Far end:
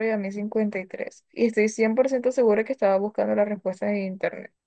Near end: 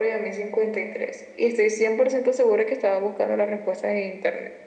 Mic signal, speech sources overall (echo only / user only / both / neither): echo only